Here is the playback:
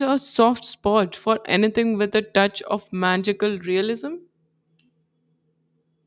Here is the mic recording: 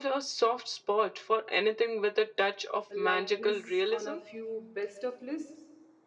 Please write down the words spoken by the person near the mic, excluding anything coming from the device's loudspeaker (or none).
likeness on a few best of lists.